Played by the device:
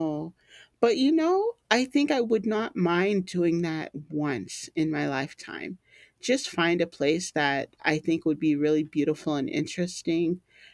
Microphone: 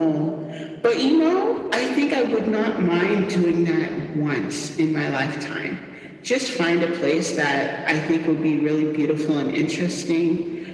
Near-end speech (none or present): none